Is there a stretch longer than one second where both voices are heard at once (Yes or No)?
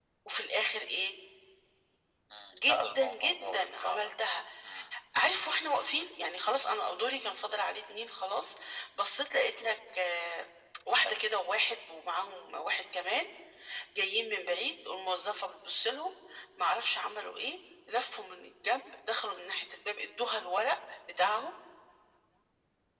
Yes